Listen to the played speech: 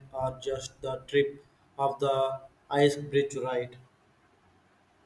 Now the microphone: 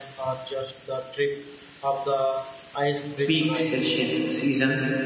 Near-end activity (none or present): present